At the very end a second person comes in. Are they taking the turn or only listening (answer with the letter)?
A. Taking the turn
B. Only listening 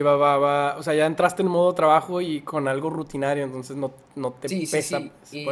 A